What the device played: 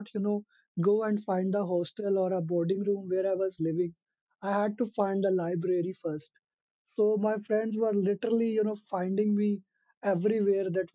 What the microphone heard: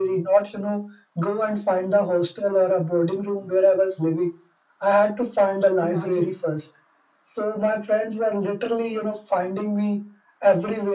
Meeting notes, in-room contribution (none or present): present